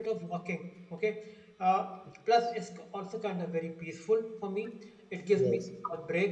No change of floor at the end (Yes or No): Yes